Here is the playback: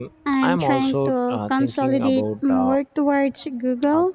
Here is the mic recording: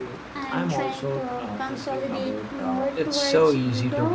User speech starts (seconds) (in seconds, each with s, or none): 2.9 s